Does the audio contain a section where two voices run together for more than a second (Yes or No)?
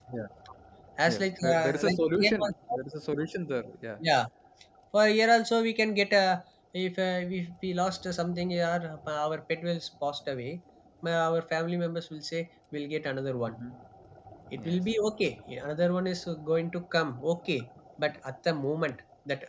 Yes